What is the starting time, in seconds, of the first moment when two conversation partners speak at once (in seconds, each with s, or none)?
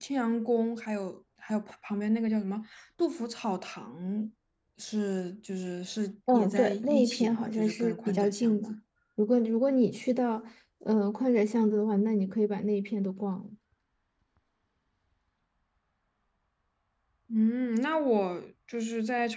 6.3 s